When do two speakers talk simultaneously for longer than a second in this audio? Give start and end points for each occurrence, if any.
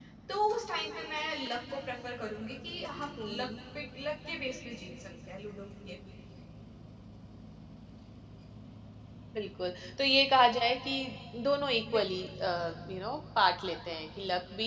none

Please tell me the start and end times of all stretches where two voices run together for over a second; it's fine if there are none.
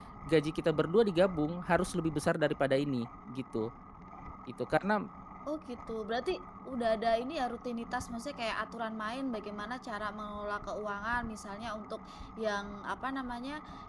none

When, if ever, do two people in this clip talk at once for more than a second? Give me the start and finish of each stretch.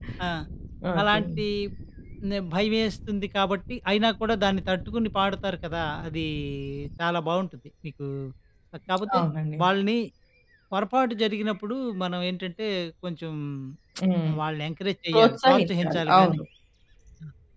15.1-16.4

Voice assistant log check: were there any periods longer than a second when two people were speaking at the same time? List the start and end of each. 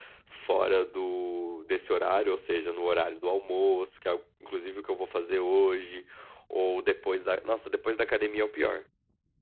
none

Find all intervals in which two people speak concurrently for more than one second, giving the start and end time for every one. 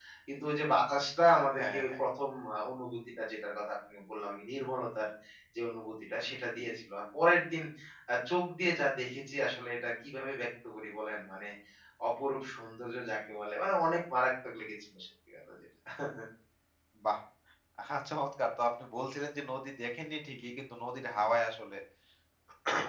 none

